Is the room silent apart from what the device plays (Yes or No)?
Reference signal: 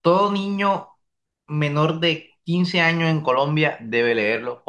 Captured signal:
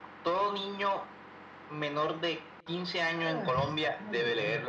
No